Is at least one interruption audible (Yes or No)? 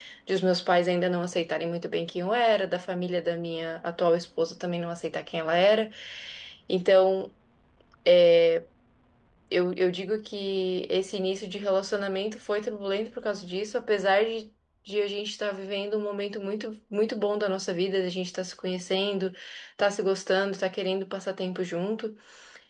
No